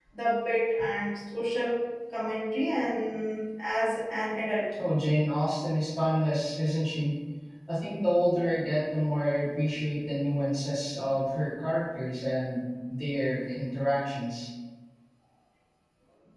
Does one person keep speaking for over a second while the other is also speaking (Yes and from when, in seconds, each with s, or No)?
No